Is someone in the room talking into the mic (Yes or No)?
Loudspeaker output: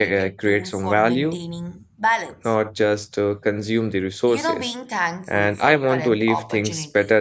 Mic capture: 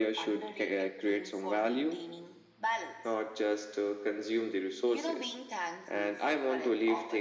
No